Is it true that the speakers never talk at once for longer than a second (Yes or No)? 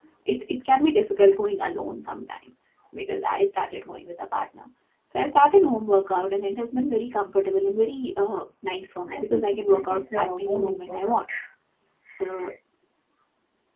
No